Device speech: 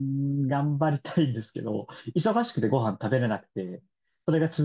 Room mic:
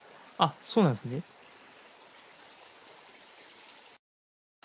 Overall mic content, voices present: user only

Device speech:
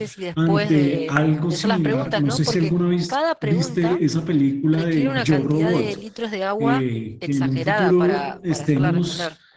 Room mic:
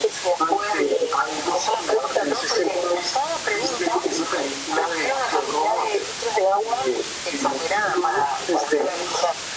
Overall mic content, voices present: echo only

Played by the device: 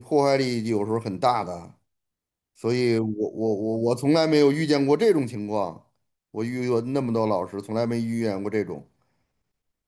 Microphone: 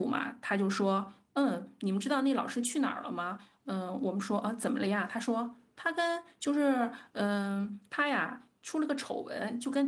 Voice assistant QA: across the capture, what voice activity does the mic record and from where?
user only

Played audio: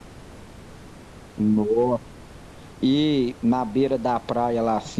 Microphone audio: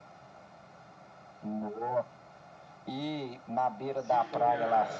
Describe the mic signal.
both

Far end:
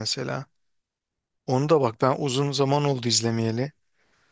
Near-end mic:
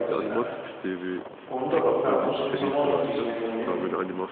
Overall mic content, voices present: both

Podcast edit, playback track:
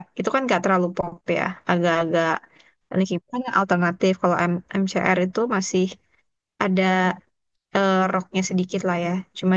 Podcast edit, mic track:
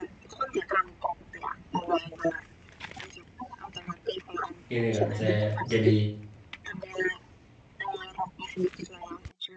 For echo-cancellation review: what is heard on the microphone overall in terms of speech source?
both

